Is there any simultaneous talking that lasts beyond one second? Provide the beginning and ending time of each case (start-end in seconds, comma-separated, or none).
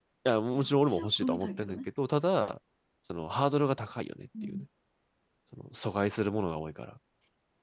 0.5-1.8